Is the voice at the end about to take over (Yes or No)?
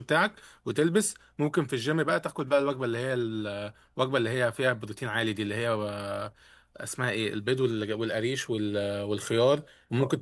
No